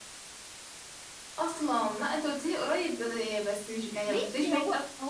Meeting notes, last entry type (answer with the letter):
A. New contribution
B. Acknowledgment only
A